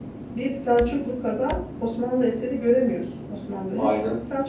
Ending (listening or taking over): listening